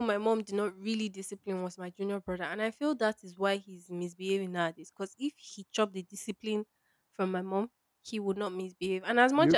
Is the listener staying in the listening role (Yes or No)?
Yes